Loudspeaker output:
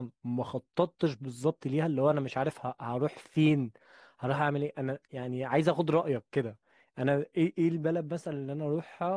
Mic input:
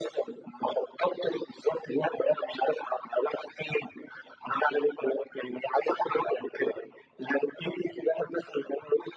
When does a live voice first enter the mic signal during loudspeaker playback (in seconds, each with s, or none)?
none